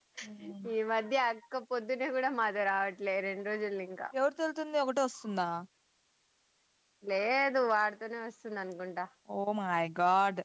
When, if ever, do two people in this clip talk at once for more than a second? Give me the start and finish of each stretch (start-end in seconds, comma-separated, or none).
none